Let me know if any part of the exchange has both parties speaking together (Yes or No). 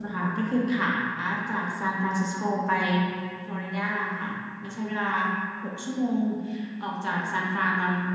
No